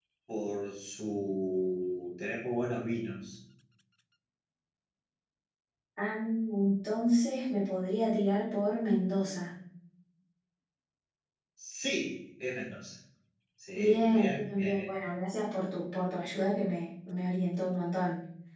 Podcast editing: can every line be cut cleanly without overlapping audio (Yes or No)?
No